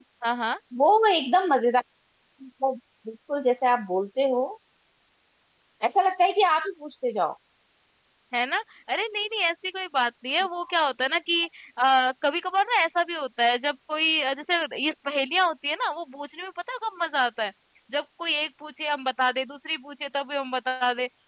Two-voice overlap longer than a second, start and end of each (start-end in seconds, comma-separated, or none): none